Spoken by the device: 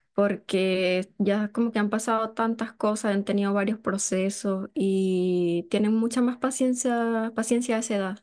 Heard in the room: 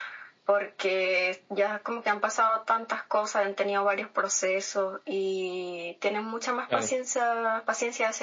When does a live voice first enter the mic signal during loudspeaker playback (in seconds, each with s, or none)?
6.7 s